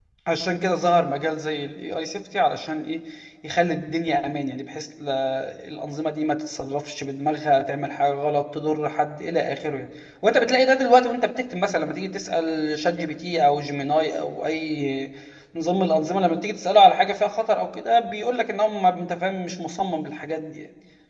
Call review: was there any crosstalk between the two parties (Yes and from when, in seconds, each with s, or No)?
No